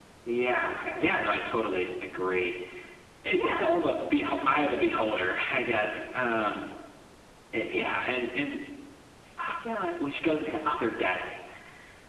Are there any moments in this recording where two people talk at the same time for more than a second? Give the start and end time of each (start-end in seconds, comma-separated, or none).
none